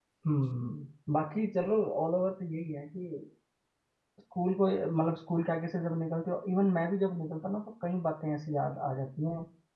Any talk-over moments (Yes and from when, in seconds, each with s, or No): No